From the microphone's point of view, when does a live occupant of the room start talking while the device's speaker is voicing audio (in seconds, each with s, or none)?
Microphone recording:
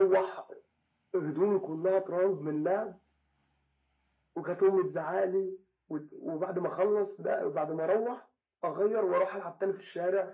none